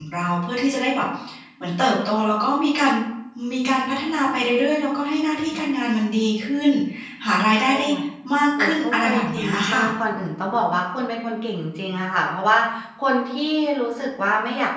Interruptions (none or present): present